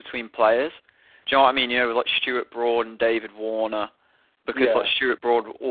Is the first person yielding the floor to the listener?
No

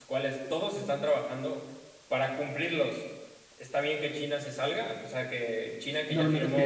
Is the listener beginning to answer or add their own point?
Yes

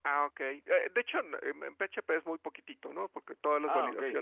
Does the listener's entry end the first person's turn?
No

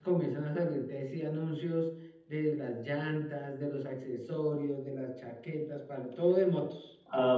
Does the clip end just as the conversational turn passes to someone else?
Yes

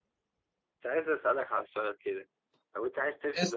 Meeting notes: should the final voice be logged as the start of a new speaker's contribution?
No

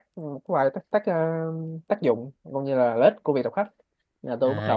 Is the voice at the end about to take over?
Yes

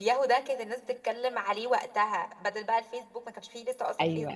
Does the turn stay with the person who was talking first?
No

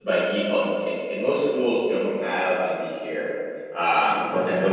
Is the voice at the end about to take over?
No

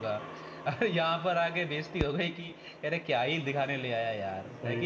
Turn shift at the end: Yes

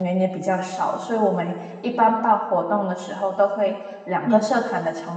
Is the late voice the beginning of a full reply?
No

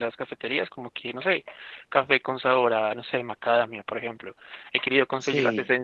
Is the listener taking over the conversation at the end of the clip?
No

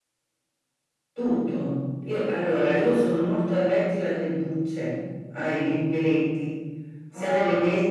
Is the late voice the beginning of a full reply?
No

